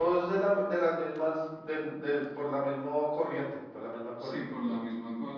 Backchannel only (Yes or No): No